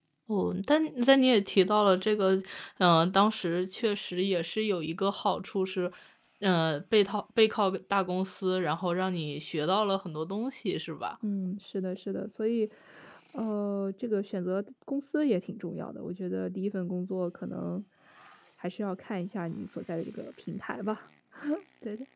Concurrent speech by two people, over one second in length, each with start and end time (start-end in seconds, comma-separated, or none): none